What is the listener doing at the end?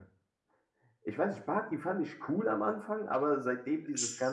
listening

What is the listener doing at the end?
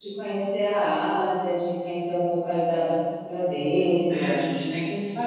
taking over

